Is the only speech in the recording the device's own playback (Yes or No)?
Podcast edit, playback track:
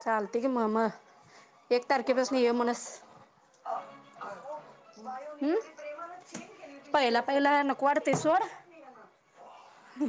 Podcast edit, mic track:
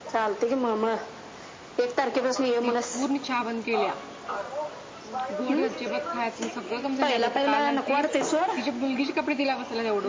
No